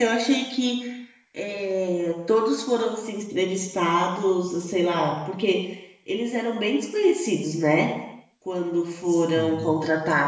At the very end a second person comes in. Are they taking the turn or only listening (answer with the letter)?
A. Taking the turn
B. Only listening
B